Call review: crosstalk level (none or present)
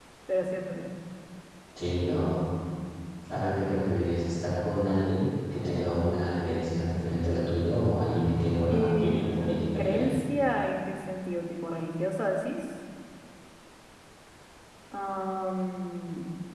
present